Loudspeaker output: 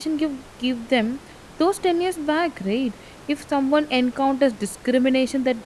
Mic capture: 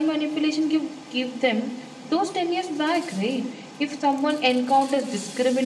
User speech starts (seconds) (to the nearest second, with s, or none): none